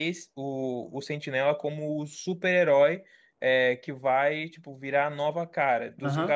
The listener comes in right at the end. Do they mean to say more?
No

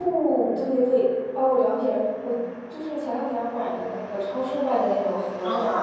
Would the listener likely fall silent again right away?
No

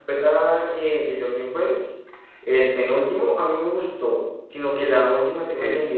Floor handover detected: No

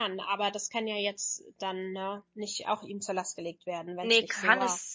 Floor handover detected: Yes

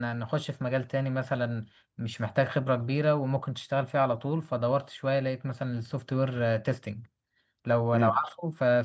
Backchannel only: Yes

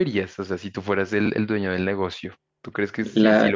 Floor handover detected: No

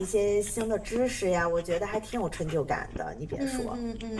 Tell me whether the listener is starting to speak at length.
Yes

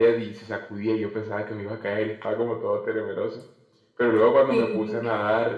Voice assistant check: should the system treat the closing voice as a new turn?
No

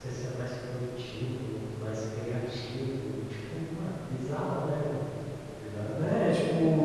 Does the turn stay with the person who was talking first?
No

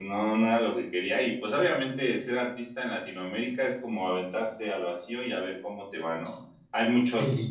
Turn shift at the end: No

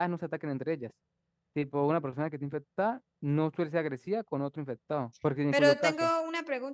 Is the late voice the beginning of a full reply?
Yes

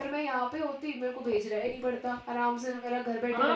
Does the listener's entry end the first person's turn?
Yes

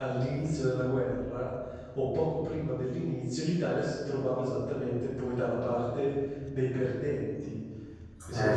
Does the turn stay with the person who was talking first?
Yes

